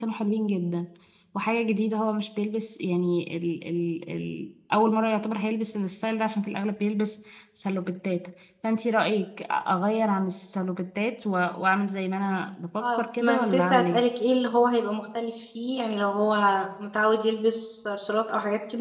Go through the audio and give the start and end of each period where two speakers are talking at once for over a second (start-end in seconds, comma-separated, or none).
12.8-14.0